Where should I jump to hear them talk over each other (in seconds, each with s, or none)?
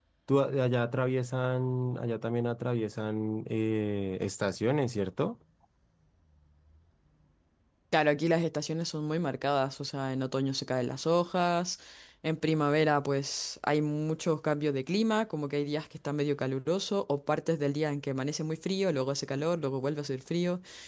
none